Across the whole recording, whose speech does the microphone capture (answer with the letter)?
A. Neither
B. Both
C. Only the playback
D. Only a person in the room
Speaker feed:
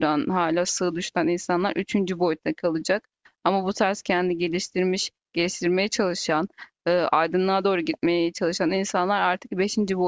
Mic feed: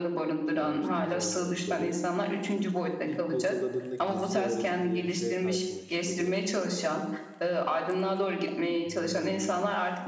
B